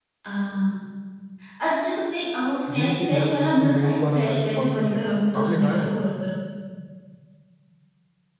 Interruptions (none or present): present